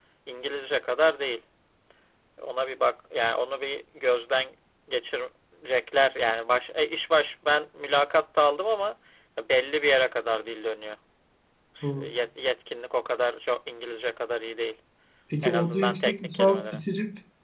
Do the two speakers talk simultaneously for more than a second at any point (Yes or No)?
Yes